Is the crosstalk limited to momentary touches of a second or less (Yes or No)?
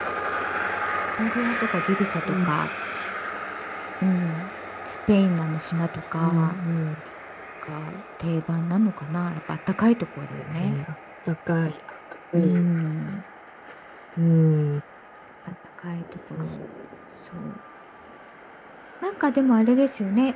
Yes